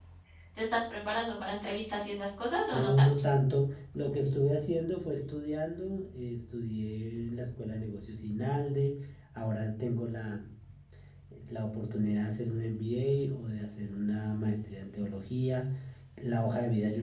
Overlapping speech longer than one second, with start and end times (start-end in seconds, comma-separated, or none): none